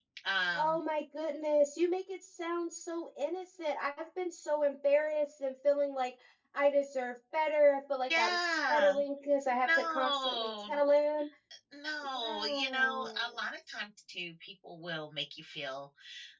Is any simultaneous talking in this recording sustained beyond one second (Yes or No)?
Yes